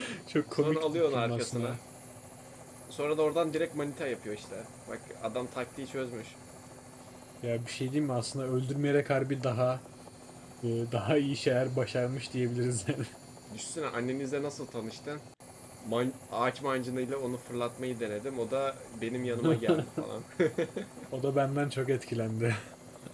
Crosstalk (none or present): present